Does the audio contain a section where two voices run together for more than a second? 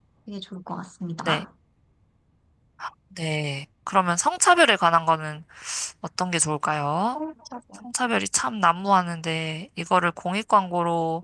No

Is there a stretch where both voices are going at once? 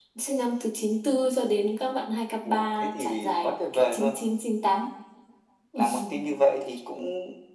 Yes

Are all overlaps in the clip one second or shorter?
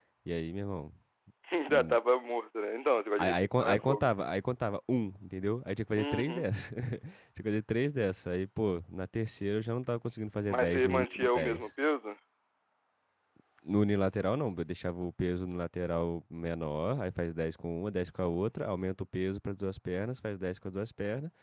No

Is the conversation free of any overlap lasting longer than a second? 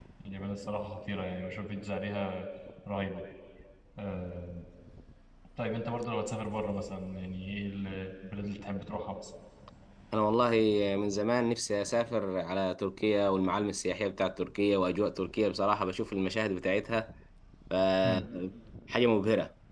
Yes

